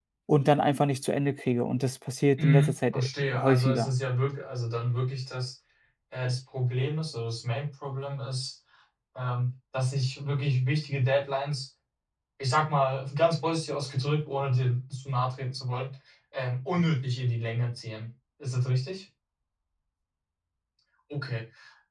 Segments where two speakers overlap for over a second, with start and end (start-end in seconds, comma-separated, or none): 2.4-3.9